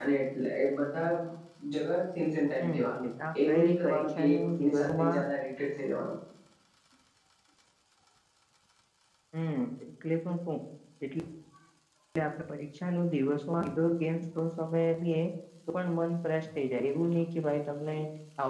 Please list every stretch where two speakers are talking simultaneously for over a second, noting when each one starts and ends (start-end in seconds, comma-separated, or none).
3.5-5.2